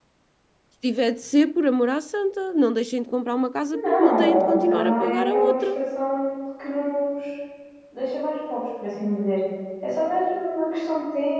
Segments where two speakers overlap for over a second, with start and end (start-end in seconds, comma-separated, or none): 3.7-5.6